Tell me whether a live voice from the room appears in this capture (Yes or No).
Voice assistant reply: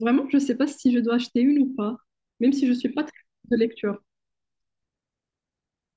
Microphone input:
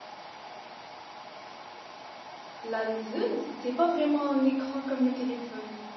Yes